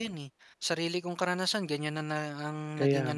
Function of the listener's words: listening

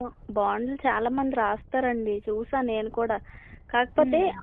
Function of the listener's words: listening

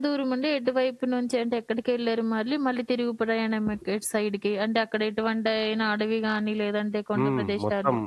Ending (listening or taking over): taking over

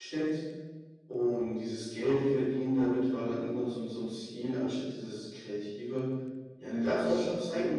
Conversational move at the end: listening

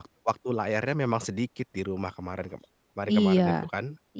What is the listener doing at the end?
taking over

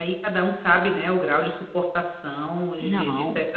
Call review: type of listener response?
listening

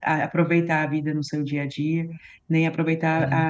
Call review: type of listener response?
listening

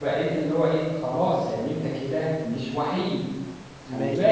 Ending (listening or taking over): taking over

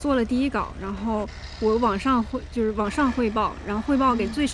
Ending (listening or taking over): listening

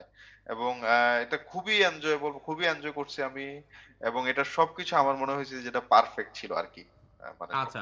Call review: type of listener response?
taking over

